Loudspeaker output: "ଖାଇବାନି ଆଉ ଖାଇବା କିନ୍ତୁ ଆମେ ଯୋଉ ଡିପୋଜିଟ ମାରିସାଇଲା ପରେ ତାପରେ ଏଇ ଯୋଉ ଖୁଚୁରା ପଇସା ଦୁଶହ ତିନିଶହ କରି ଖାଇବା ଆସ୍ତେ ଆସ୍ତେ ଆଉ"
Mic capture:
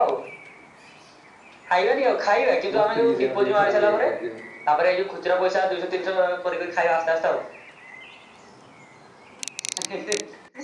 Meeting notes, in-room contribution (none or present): present